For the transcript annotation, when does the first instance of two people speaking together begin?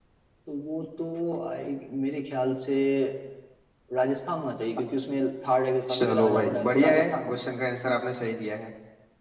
5.9 s

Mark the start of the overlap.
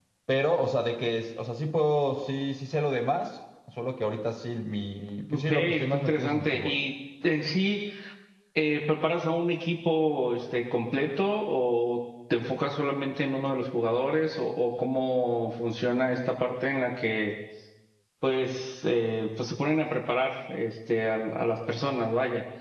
5.3 s

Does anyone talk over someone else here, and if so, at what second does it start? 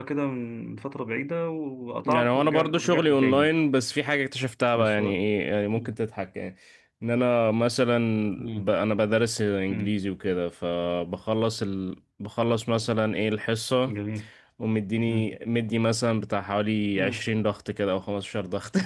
2.1 s

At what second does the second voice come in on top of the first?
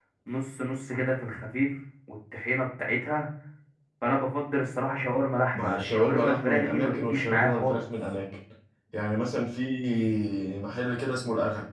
5.5 s

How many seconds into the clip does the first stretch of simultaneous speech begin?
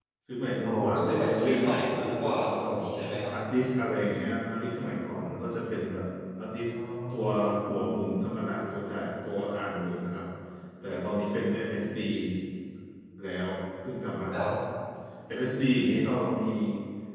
0.6 s

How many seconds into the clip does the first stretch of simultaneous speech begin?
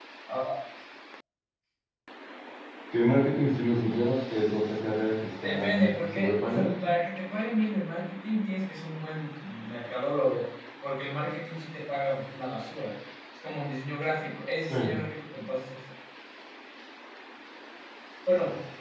5.4 s

